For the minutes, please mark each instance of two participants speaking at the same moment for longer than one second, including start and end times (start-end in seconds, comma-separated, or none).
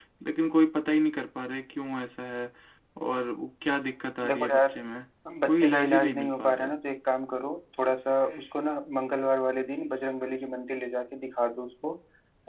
5.5-6.8